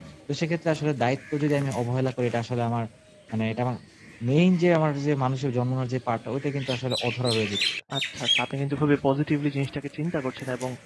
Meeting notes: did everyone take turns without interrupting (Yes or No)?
Yes